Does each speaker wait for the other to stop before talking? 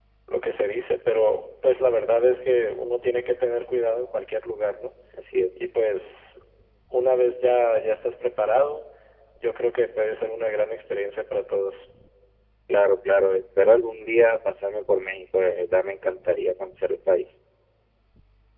Yes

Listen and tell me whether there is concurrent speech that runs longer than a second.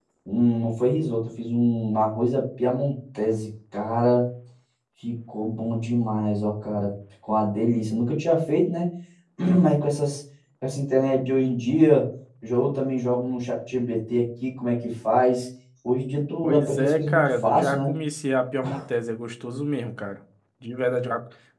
Yes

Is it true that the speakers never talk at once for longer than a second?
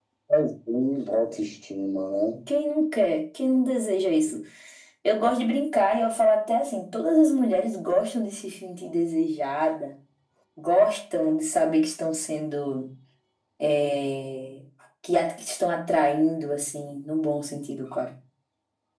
Yes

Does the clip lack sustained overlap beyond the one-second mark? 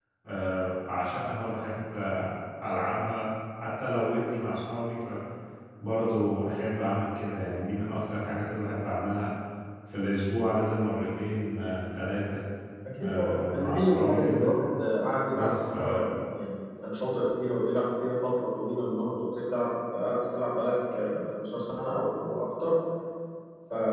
No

